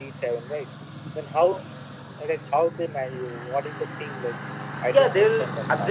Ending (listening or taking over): taking over